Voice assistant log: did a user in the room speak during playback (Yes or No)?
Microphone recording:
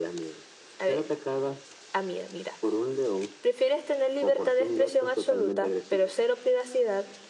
Yes